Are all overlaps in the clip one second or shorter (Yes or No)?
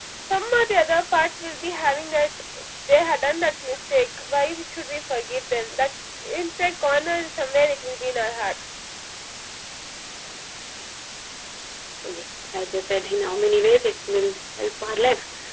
Yes